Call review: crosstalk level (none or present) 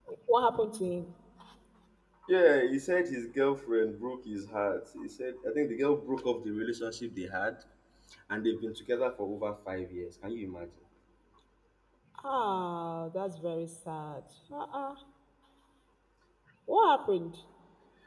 none